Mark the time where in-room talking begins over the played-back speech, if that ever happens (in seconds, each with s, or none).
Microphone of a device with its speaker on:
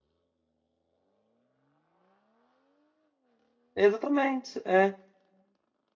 3.7 s